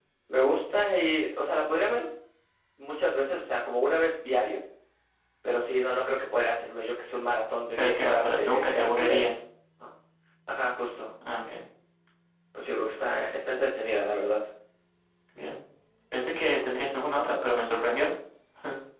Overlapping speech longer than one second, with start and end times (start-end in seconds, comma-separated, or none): 7.8-9.4